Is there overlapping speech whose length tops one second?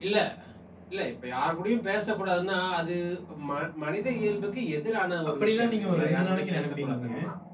Yes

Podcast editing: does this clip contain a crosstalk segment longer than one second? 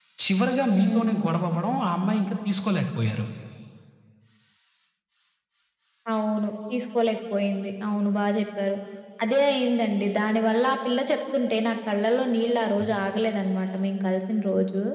No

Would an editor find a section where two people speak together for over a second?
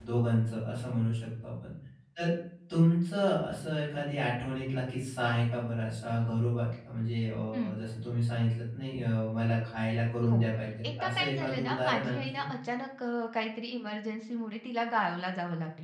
Yes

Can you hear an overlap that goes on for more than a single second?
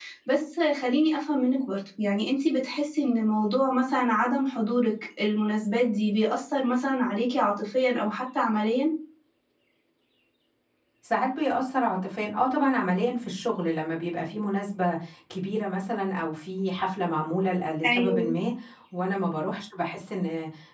No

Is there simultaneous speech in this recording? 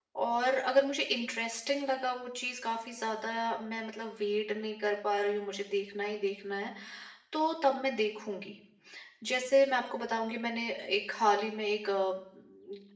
No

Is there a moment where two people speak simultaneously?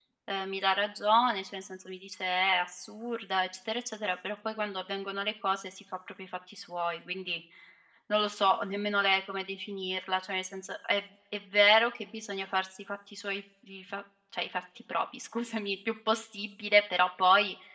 No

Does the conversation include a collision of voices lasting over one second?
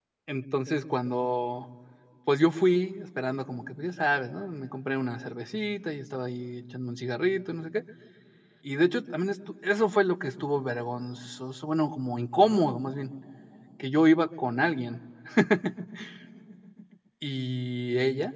No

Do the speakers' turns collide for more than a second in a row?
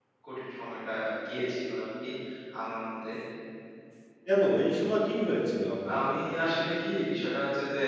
No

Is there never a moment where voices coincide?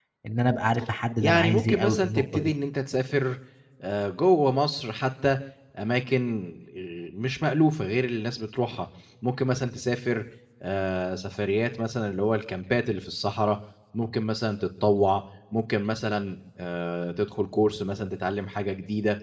No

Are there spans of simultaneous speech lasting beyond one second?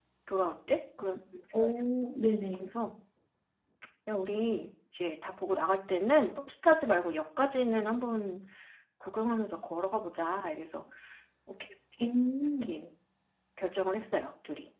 No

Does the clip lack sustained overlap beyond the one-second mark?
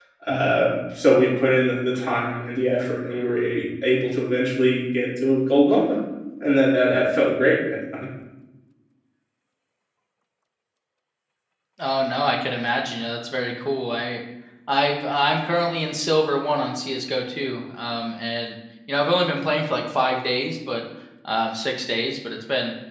Yes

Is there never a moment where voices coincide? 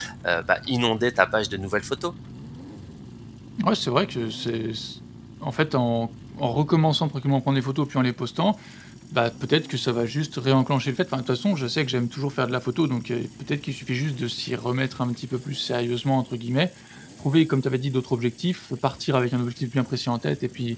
Yes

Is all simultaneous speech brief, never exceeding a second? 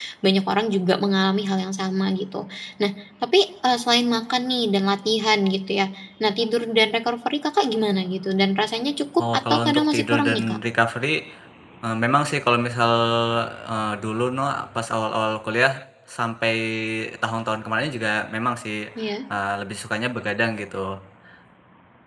No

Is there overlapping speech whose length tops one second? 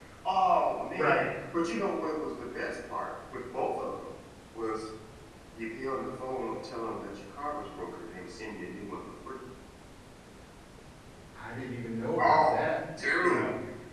No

